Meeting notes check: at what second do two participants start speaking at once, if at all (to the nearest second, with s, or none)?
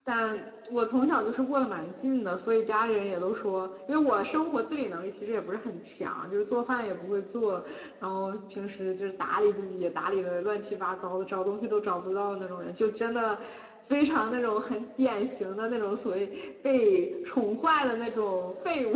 none